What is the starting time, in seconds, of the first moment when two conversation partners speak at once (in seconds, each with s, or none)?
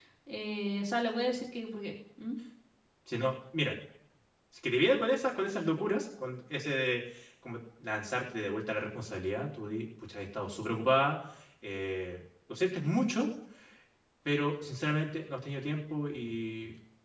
none